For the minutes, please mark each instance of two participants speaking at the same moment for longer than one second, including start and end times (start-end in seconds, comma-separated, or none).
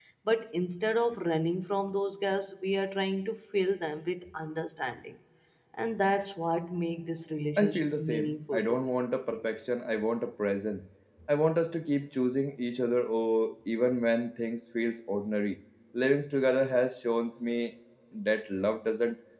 7.6-8.8